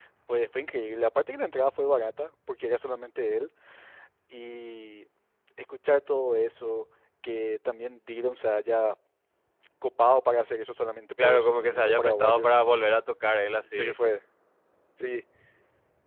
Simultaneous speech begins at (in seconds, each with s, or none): 11.2 s